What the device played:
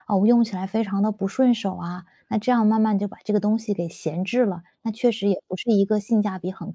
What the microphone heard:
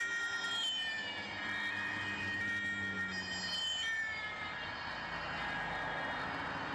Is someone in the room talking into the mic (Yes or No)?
No